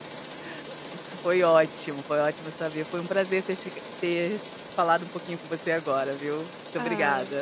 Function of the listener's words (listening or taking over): taking over